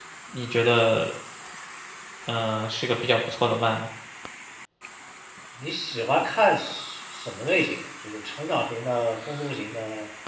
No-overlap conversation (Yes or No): Yes